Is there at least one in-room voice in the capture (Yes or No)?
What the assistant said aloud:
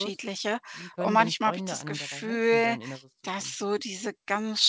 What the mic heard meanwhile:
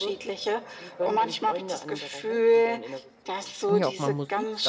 Yes